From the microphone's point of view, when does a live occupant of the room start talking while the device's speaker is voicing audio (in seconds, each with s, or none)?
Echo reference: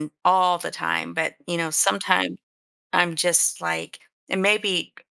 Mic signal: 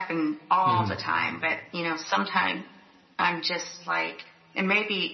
0.6 s